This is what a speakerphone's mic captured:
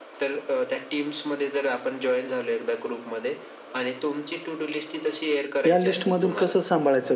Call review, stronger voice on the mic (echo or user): user